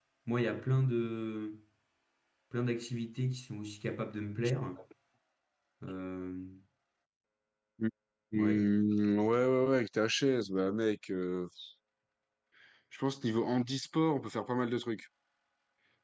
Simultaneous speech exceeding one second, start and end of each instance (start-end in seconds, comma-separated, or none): none